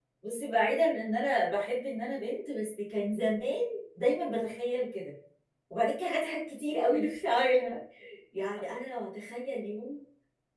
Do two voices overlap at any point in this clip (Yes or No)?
No